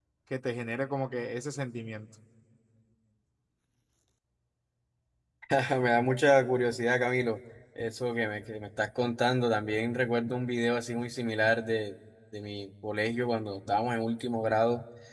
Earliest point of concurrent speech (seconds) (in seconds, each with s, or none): none